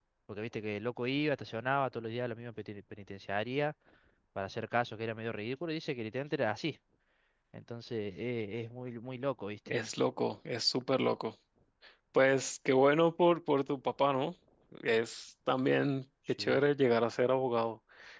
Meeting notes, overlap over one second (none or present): none